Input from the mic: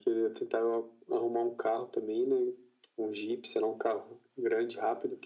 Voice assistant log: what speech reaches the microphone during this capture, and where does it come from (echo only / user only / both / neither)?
echo only